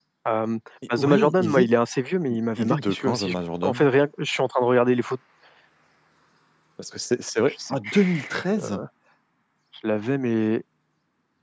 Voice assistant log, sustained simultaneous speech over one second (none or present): present